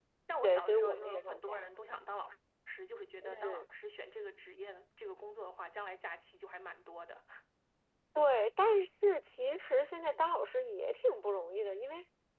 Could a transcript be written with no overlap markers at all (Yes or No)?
No